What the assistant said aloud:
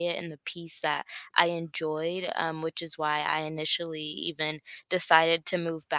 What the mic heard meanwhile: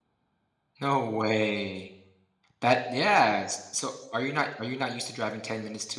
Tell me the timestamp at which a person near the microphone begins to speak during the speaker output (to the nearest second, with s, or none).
1 s